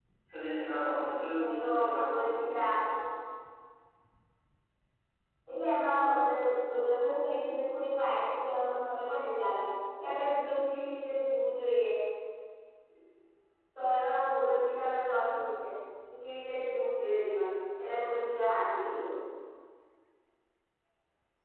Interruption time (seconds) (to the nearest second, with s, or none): 1 s